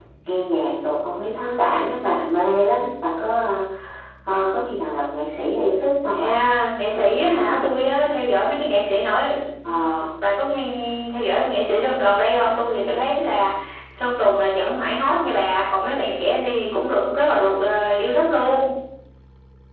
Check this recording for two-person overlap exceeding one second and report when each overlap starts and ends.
none

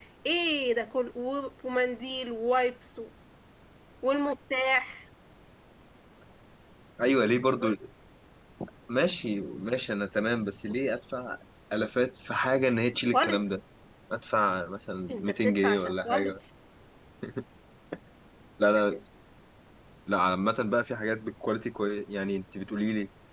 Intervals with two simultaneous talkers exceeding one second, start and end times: 15.1-16.3

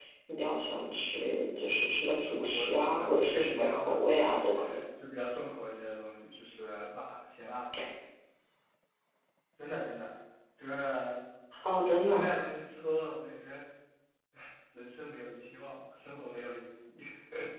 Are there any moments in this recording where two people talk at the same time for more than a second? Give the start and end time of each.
2.5-4.5

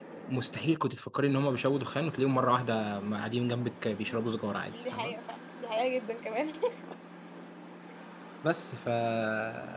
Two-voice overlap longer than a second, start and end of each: none

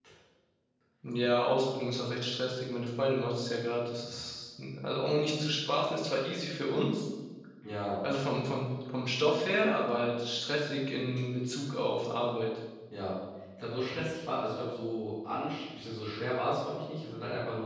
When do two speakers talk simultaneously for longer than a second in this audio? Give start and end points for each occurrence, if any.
none

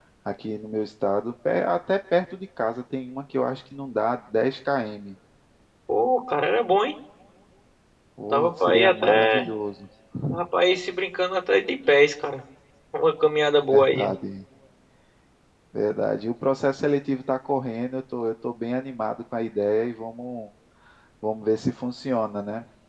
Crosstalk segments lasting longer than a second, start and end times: 8.2-9.5

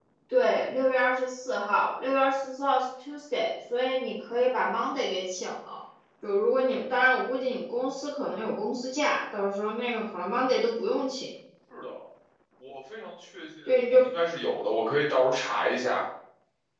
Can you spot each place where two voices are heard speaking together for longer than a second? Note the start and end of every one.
none

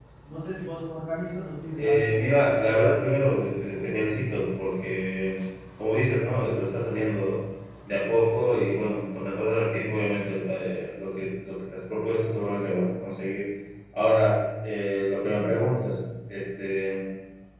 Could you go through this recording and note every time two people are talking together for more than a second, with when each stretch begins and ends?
none

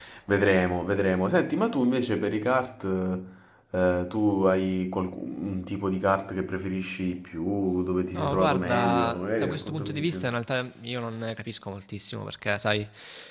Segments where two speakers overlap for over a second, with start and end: 8.1-10.2

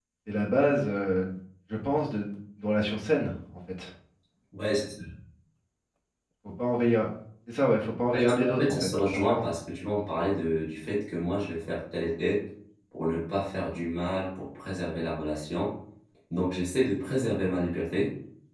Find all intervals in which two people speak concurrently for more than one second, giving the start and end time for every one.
8.1-9.5

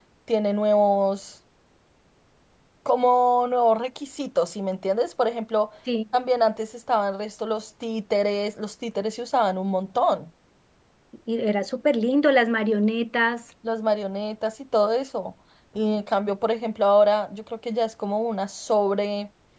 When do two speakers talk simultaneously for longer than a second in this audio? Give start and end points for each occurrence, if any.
none

